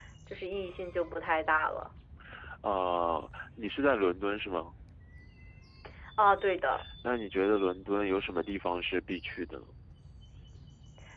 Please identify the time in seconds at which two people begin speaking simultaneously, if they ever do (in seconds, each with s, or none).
none